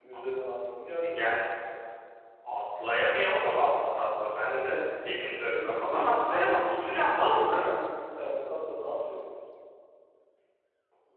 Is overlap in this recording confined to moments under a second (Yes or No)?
No